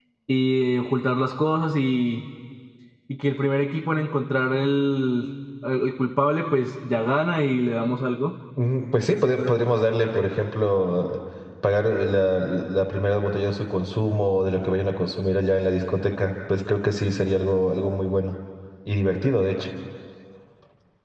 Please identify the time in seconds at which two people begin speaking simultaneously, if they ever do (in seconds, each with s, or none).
none